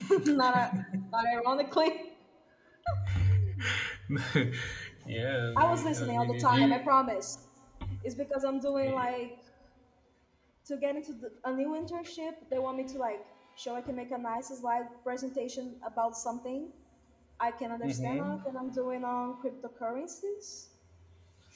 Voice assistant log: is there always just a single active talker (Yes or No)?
No